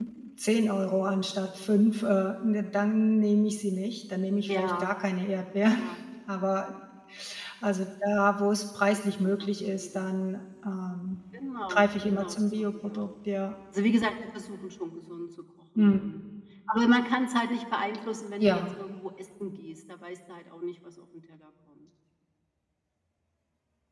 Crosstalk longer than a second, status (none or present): present